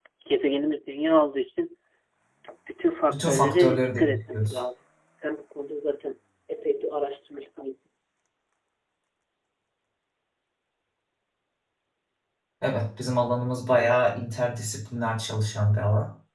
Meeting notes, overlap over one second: present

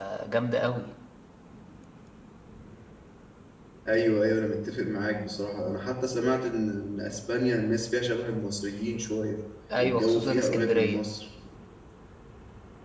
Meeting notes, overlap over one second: present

